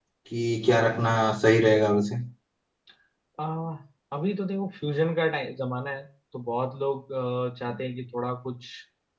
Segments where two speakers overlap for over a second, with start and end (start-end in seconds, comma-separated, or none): none